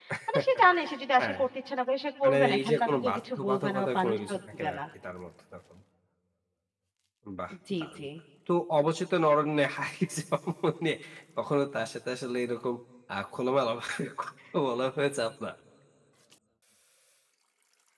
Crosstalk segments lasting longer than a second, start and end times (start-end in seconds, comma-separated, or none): 2.2-4.8